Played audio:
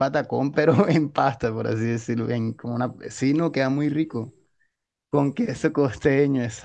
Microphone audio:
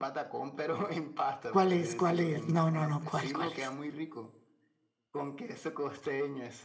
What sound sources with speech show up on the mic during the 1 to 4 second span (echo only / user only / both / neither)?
both